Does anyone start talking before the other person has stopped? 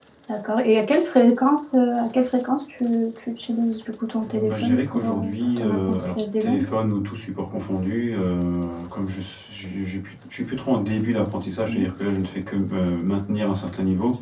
Yes, from 4.2 s

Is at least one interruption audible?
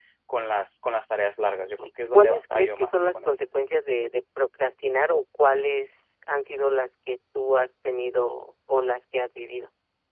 Yes, from 1.8 s

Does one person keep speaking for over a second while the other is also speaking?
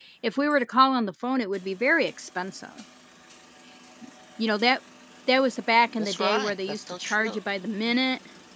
Yes, from 6.0 s

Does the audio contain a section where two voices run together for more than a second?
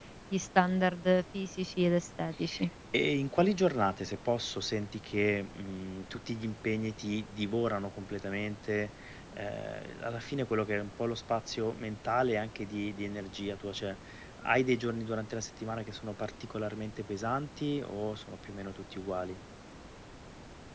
No

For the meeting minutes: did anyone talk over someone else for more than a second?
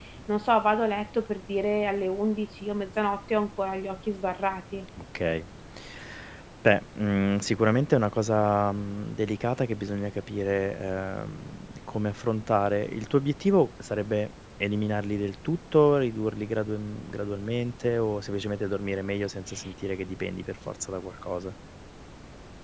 No

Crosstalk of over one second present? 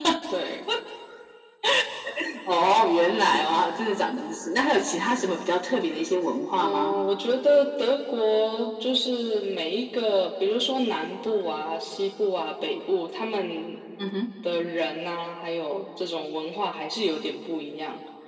No

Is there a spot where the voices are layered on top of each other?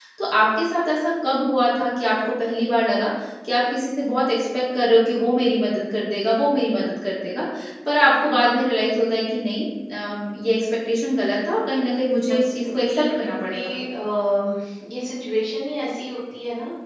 Yes, from 12.5 s

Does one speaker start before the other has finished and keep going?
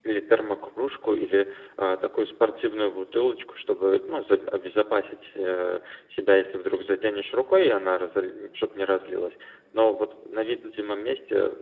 No

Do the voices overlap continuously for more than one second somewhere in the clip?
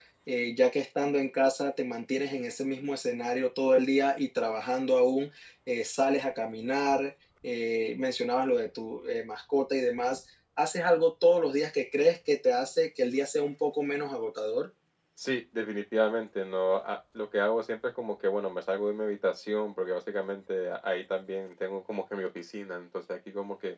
No

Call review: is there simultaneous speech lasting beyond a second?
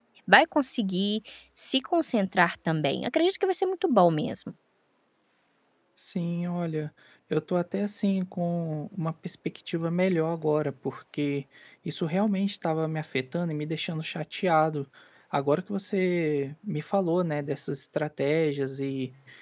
No

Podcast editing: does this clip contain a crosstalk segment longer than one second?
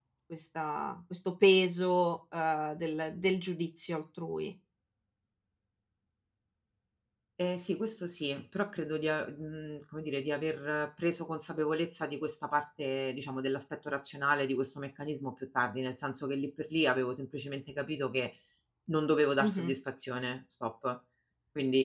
No

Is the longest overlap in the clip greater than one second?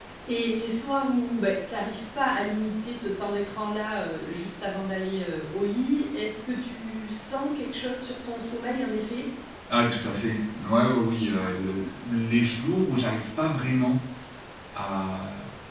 No

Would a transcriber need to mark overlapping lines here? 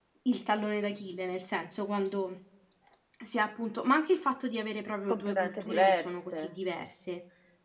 Yes, from 5.1 s

